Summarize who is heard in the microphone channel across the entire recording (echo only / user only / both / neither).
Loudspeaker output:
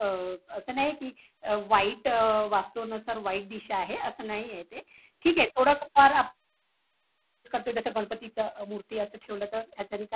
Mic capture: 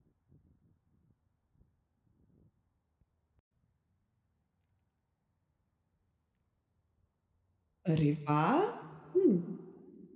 user only